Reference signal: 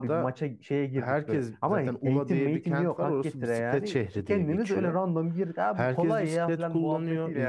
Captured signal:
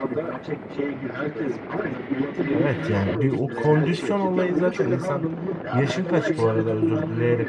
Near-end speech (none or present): present